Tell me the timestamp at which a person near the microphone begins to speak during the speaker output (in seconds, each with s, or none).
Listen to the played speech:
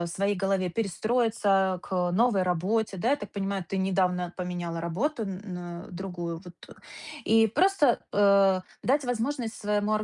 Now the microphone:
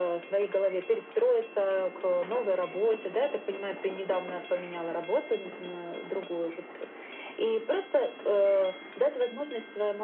none